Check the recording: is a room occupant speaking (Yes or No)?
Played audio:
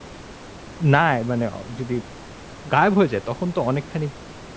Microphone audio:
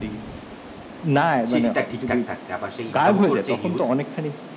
Yes